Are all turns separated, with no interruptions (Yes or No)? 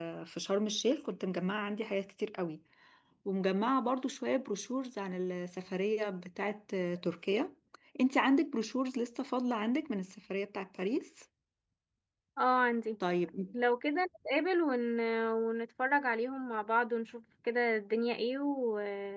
Yes